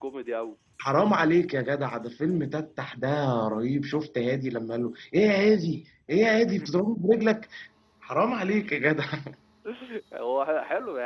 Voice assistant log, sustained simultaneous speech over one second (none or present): none